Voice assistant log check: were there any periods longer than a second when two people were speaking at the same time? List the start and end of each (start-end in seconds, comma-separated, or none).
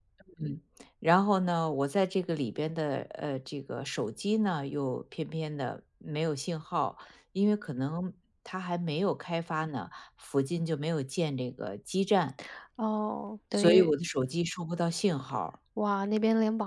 none